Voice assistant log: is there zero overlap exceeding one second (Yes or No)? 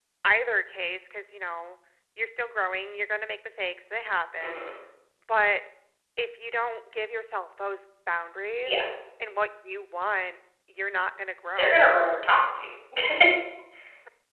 Yes